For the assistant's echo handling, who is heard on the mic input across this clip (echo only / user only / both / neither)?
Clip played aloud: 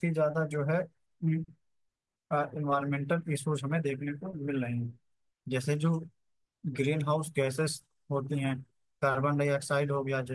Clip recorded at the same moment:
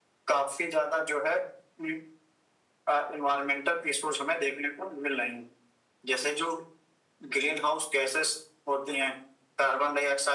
echo only